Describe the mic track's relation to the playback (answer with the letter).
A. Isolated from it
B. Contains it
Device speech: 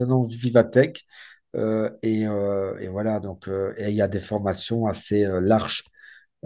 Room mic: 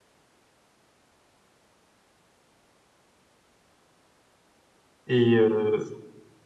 A